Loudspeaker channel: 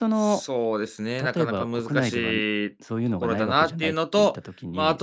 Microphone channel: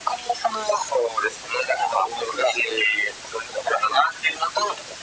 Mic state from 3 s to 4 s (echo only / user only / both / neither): echo only